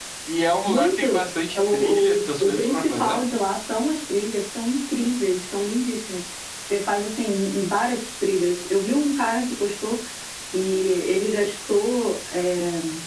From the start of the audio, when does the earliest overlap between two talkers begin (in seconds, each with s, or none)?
0.6 s